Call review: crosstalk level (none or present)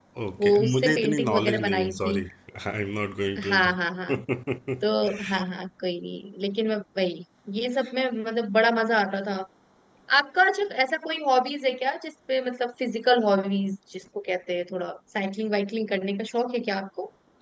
present